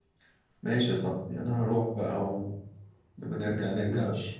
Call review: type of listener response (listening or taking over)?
listening